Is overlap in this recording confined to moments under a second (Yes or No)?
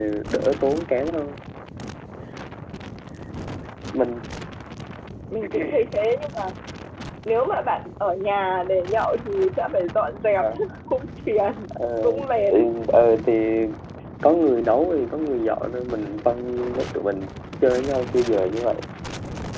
Yes